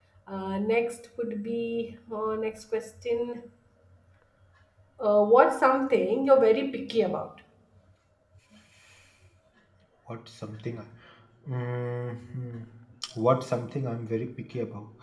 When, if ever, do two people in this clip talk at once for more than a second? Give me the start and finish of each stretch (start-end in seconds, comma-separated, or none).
none